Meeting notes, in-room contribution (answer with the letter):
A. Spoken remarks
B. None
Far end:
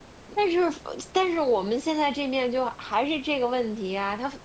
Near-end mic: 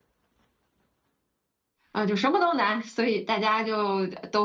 A